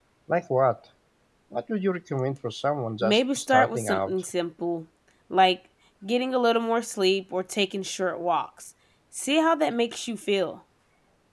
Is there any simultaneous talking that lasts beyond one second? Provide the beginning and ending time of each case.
3.0-4.2

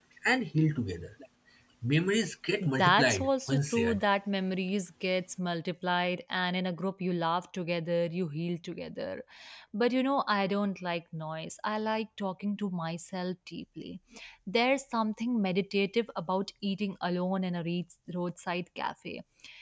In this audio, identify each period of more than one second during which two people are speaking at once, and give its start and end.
2.8-4.0

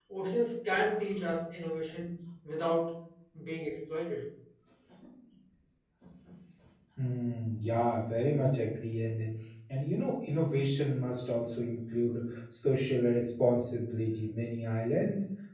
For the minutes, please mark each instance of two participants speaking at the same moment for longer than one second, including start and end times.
none

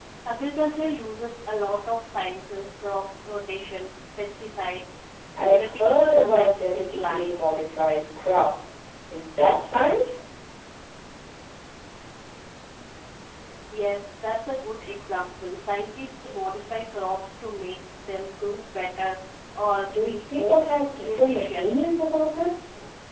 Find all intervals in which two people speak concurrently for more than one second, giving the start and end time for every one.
5.5-7.5, 19.9-21.8

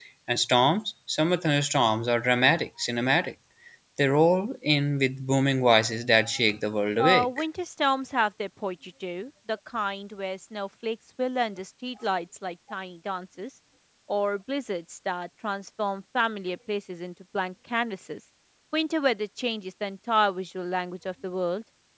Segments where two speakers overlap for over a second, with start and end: none

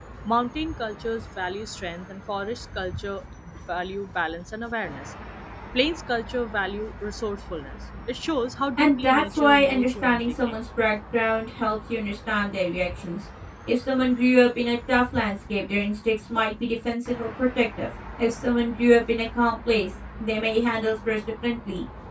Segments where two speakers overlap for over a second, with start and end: 8.8-10.6

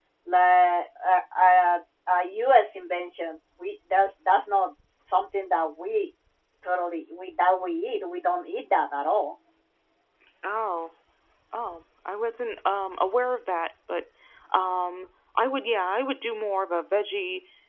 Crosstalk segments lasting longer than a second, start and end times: none

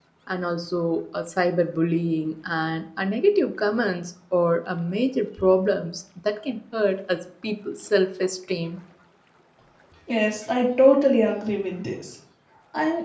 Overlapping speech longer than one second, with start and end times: none

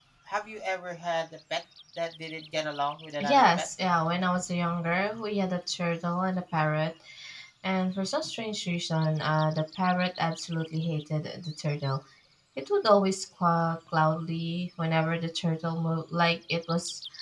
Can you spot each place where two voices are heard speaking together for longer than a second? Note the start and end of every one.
none

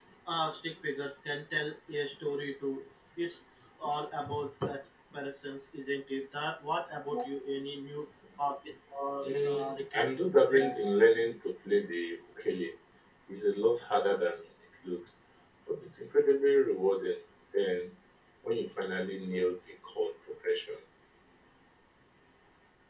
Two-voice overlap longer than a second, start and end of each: 9.2-11.0

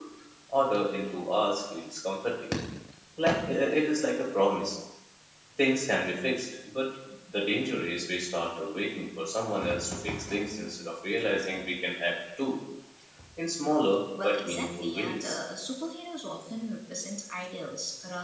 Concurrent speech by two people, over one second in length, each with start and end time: 14.2-15.4

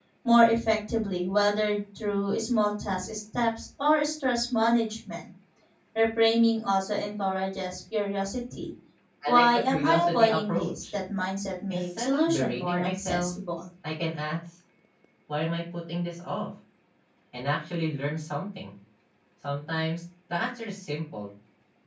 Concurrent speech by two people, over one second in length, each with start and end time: 9.3-10.8, 11.7-13.3

